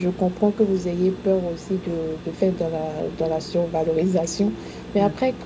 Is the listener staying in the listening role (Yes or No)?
Yes